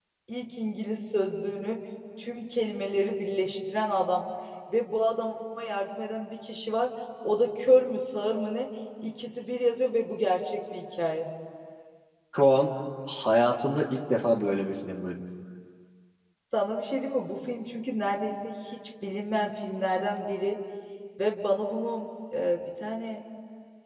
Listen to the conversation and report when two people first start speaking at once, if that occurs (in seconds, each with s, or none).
none